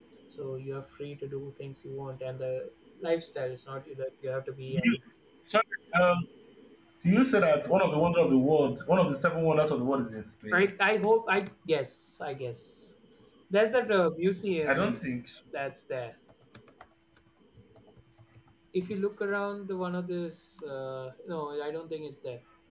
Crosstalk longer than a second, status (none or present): none